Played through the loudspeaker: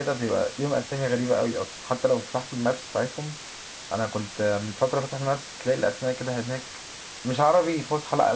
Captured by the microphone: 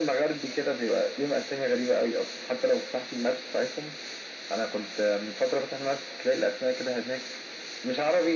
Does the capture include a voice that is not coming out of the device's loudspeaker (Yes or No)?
No